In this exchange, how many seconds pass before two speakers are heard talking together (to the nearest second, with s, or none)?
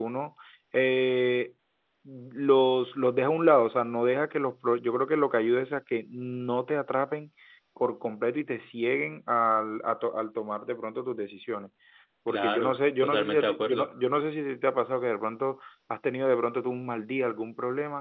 12 s